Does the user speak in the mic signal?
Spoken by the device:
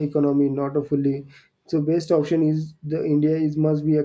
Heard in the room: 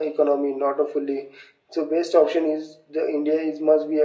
No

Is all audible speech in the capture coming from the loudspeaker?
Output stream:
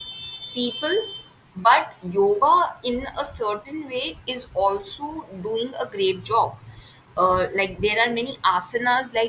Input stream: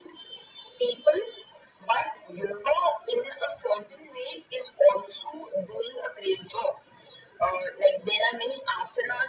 Yes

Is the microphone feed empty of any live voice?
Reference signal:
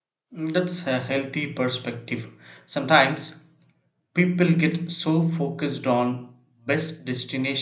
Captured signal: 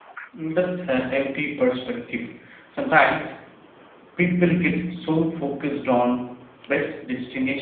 Yes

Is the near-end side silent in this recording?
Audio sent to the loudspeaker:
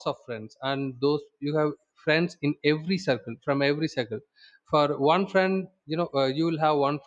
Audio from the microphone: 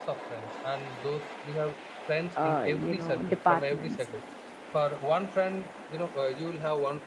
No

